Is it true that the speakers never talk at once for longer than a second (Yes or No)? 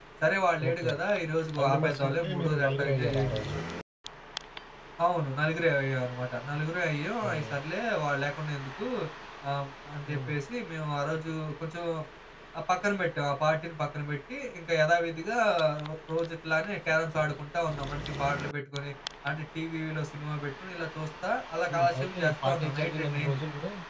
No